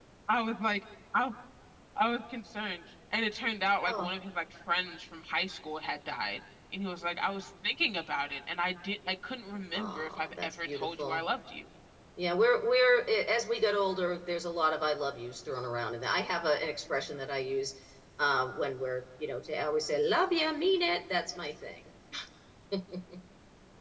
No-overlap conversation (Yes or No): No